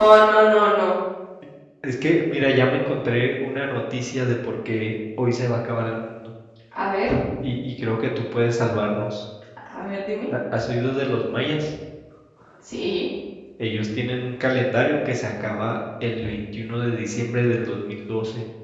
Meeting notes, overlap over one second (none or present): none